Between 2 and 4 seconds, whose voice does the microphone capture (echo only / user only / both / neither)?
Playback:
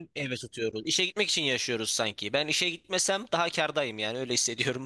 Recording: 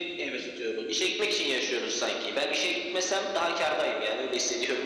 echo only